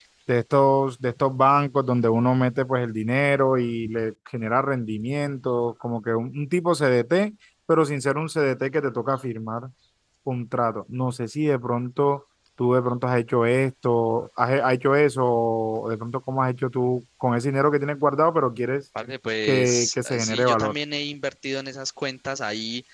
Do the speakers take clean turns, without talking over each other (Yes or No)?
No